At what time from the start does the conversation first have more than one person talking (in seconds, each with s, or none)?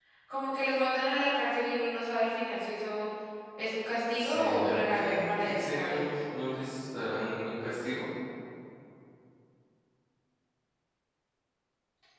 4.1 s